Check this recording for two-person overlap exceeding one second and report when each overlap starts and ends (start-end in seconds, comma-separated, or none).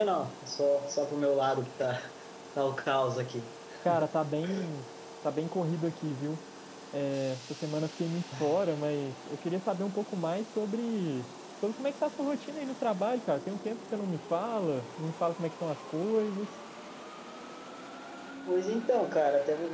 none